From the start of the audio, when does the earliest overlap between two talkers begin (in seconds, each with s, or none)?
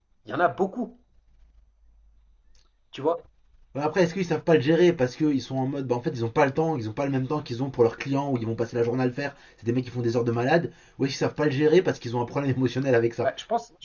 none